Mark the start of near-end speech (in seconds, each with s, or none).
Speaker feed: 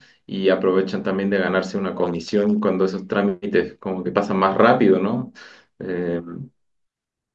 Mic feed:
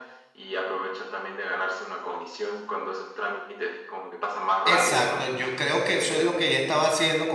4.6 s